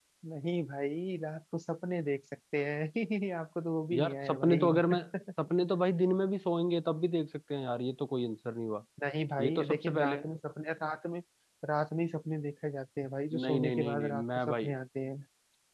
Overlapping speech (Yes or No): Yes